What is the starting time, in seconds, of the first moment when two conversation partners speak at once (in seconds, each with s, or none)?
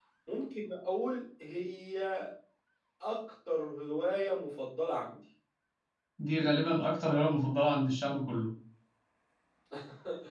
none